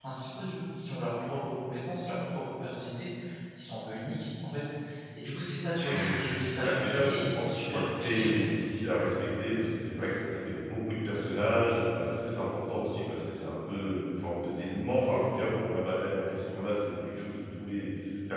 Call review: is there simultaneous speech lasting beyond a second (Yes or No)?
Yes